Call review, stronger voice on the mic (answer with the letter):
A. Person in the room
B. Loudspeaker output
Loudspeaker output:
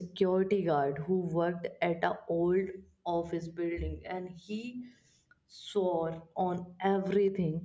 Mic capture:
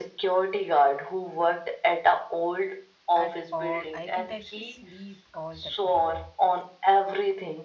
B